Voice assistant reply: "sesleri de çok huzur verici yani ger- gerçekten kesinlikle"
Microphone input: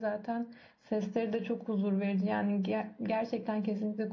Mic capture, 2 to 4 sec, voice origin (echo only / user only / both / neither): echo only